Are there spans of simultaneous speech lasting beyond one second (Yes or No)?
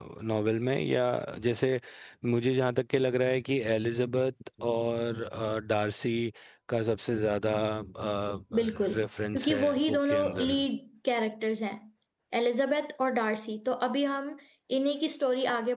Yes